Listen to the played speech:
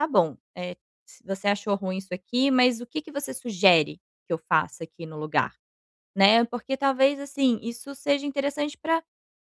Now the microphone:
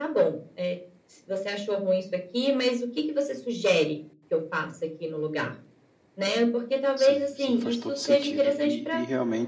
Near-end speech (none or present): present